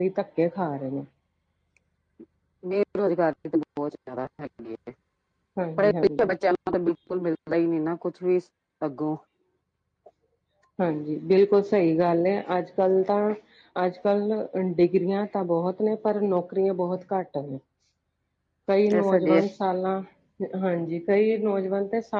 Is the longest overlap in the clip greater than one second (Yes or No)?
No